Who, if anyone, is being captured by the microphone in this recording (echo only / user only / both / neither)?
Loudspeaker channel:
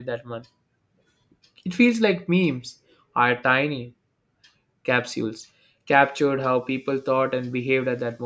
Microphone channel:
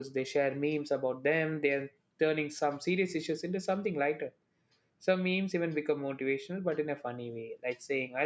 user only